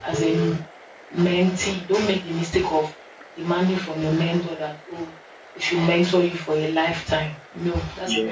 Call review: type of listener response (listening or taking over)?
taking over